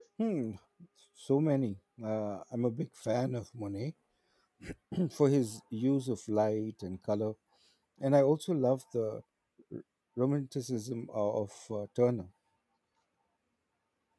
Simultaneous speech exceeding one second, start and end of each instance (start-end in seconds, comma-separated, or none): none